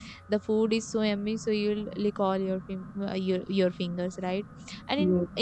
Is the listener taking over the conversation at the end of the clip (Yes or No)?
No